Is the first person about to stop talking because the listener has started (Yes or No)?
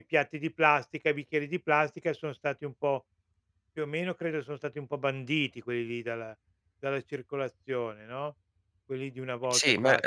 Yes